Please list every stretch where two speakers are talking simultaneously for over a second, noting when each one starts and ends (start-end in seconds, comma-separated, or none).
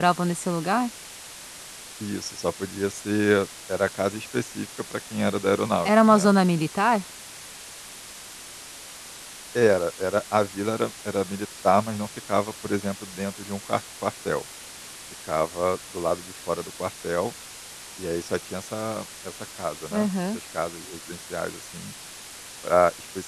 none